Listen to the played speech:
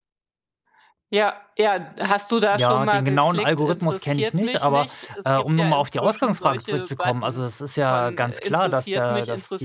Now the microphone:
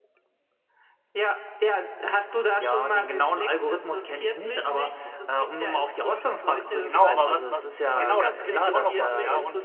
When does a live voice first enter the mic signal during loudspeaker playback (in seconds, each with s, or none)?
6.8 s